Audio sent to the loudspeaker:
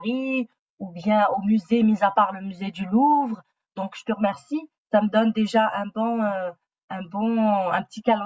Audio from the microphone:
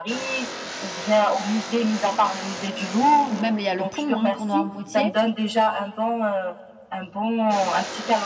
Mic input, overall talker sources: both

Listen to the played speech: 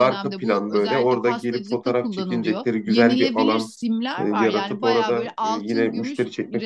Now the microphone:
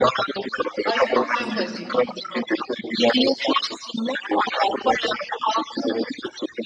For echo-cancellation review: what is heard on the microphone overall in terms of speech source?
both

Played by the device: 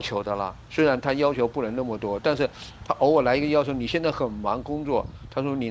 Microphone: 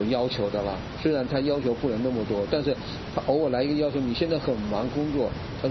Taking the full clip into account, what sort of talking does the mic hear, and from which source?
echo only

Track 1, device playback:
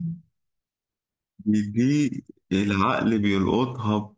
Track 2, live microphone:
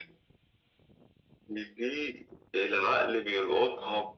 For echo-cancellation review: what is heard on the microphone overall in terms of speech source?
both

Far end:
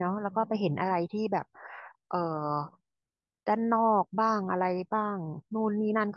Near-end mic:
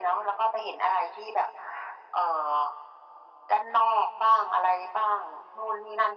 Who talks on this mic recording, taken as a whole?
echo only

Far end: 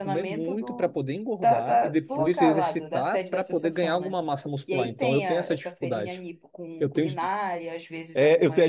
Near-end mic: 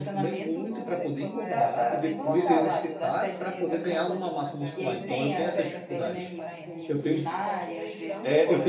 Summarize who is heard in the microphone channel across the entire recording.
both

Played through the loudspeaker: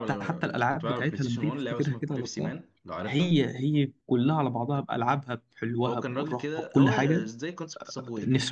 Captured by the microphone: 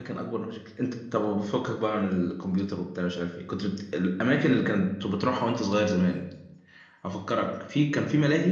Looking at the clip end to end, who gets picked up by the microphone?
user only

